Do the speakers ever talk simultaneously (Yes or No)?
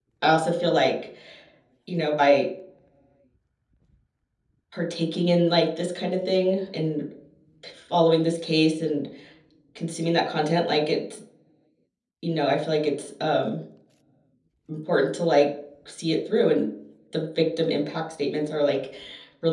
No